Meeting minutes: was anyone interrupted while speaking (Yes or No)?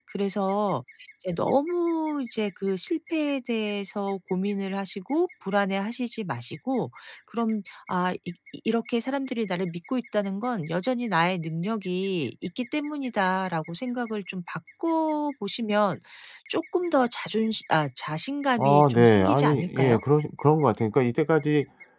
Yes